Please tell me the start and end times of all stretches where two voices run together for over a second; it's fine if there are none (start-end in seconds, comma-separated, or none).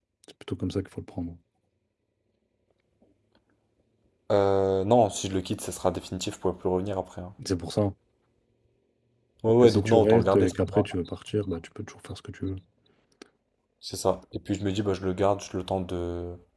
9.6-10.9